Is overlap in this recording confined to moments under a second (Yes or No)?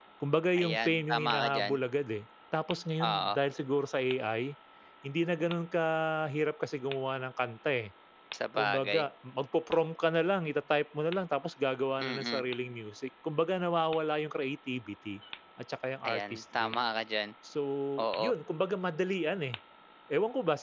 No